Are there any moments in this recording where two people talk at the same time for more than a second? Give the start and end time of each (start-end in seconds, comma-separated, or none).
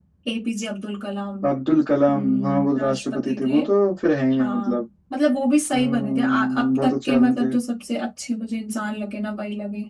2.1-3.6, 5.7-7.5